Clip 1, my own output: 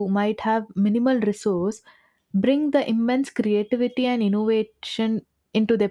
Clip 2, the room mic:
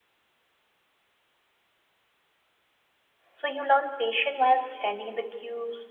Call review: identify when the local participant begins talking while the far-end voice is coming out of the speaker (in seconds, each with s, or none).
3.3 s